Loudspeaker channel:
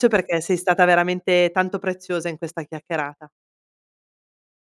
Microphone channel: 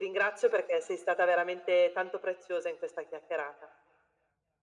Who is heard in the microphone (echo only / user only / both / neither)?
echo only